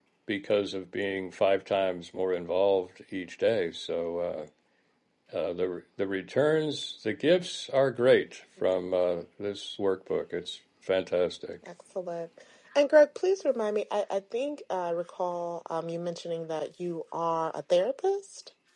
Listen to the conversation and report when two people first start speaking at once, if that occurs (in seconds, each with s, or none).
none